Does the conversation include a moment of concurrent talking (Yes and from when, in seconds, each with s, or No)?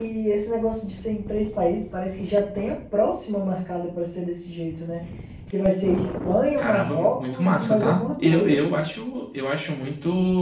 Yes, from 6.6 s